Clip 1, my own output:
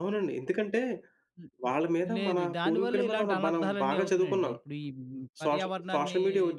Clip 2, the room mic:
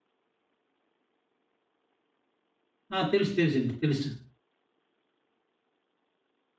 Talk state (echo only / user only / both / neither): user only